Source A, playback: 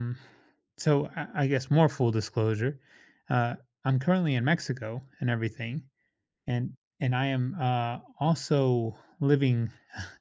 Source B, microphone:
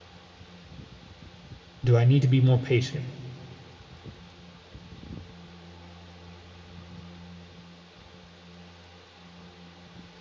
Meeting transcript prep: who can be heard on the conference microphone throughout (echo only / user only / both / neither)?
user only